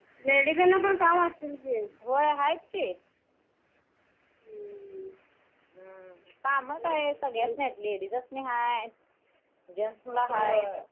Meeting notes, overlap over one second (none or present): none